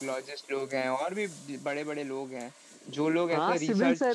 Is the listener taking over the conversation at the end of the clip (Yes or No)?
Yes